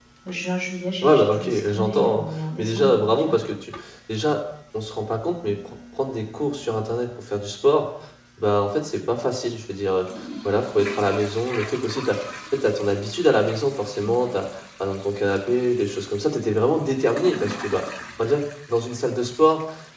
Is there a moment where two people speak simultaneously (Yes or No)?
Yes